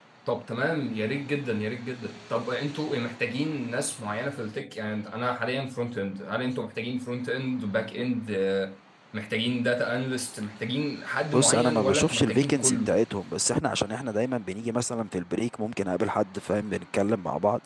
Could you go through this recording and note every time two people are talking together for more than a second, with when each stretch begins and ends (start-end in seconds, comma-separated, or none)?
11.3-12.9